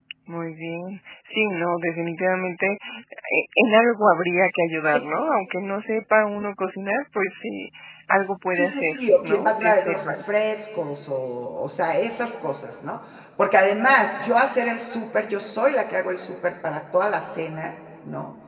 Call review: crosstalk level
present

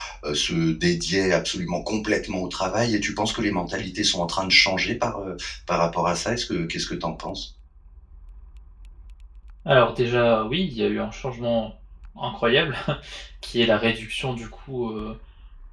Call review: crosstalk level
none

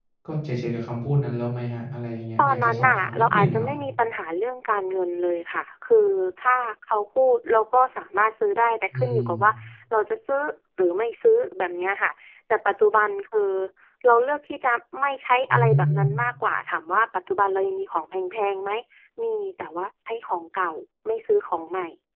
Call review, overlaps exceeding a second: present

